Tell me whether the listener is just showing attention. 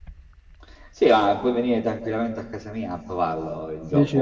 Yes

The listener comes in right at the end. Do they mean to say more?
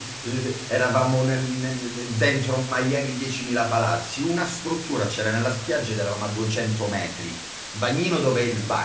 No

